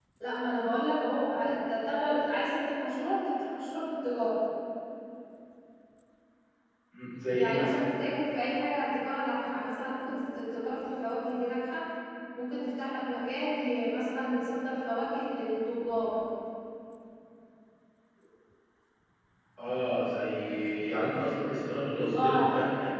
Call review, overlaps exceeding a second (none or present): none